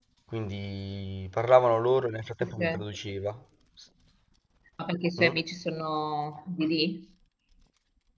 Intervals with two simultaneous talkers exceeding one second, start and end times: none

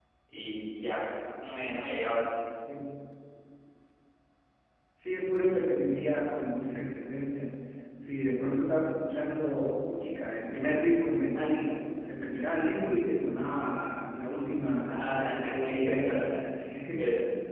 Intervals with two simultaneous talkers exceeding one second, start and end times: 14.9-16.4

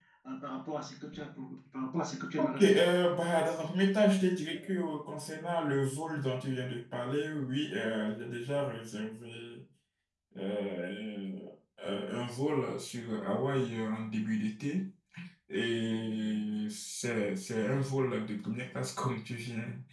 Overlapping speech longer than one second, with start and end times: none

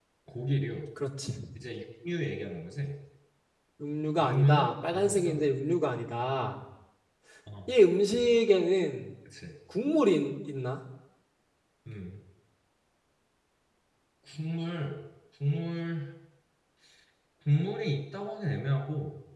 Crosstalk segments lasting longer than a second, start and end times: 4.2-5.4

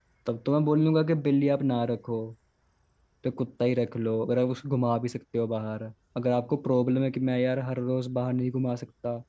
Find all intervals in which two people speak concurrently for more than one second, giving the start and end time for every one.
none

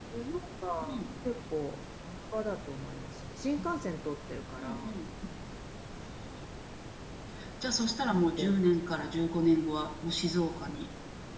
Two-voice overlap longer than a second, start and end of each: none

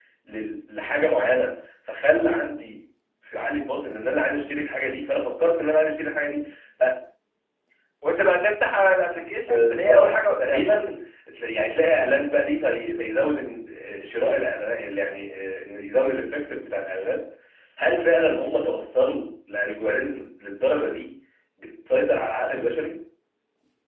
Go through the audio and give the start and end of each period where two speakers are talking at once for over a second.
9.4-10.7

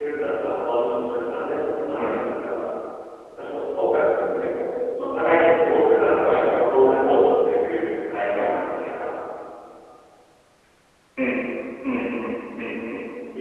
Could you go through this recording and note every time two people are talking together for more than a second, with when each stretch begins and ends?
none

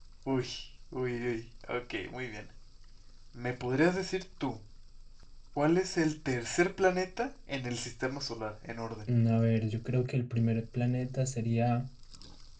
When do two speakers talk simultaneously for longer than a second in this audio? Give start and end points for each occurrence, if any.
none

